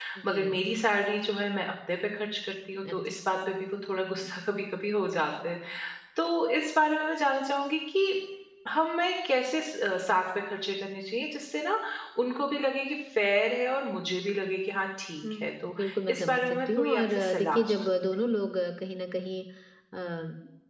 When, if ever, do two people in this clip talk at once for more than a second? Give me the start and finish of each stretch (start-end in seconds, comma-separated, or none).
15.4-17.7